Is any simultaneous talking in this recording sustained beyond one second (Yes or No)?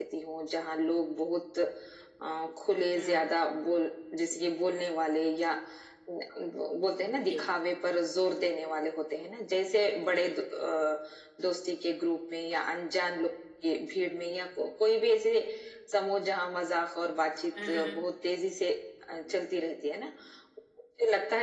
No